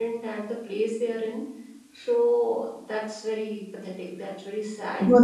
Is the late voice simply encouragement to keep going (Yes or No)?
No